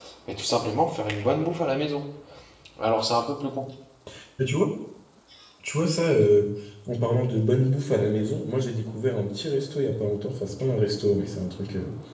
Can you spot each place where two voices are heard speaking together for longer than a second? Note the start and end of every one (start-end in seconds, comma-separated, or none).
none